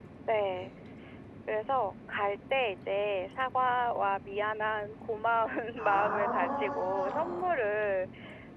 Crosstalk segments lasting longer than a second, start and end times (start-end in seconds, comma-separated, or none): 5.8-7.5